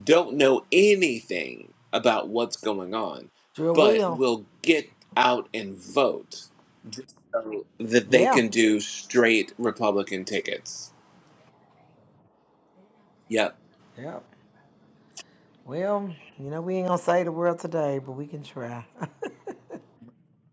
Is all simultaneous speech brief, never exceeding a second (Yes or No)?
Yes